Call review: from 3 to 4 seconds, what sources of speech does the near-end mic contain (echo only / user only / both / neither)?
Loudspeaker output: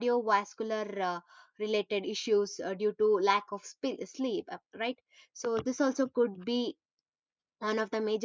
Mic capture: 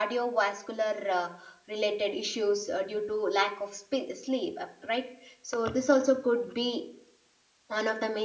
echo only